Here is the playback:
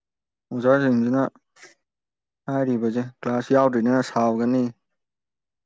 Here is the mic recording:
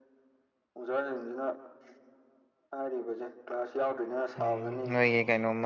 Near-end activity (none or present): present